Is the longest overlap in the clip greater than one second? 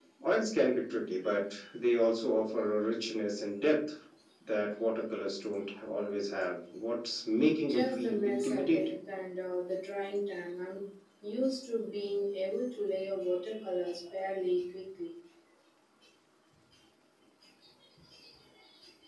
Yes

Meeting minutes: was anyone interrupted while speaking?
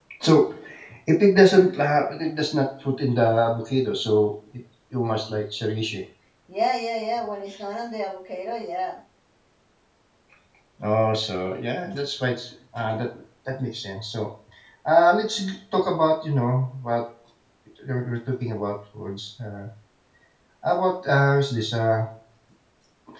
No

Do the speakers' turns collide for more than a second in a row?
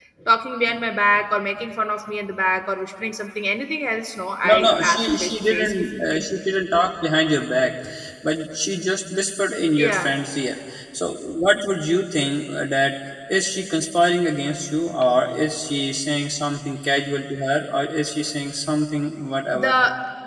Yes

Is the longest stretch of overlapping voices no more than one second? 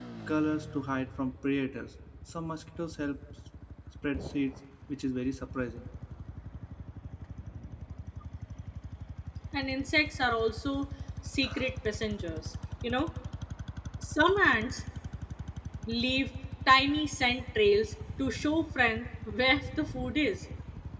Yes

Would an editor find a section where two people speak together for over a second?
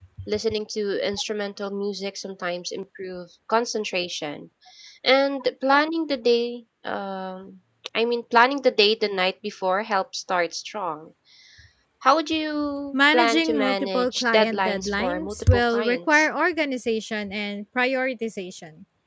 Yes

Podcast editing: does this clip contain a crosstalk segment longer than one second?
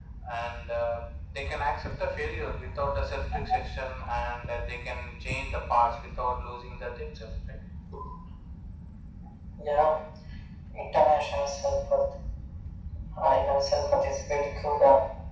No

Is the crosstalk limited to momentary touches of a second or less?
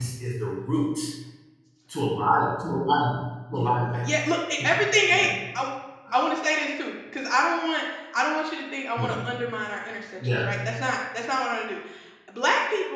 Yes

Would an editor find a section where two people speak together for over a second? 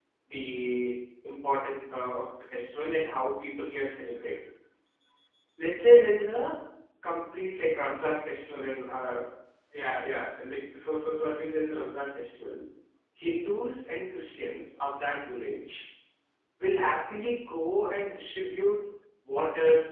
No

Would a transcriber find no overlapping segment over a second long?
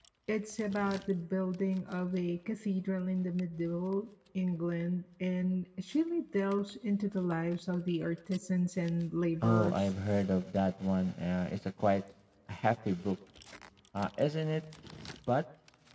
Yes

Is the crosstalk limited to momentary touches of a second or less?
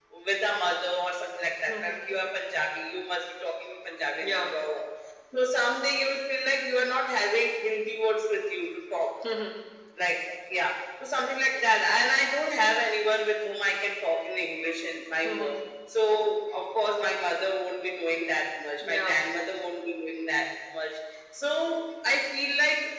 Yes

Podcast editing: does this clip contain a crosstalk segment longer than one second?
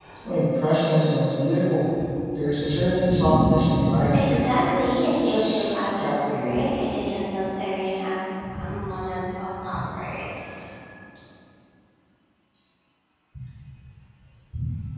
Yes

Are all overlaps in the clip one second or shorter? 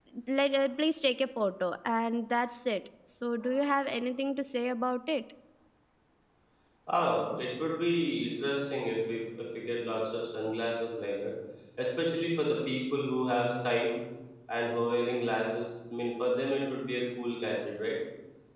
Yes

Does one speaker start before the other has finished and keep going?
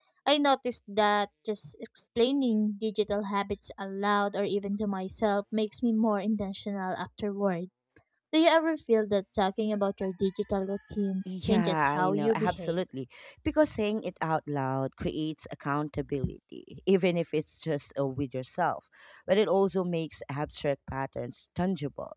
Yes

